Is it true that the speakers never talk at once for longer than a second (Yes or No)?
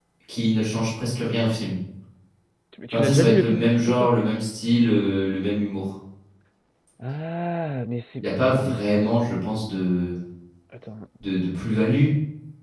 No